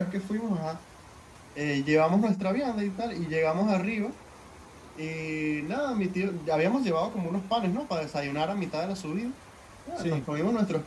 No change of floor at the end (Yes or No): Yes